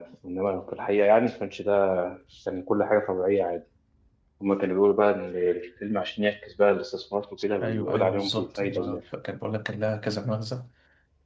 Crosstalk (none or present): present